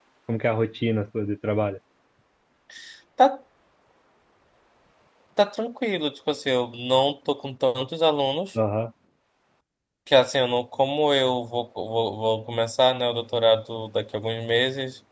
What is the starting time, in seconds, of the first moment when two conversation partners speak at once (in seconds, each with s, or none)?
none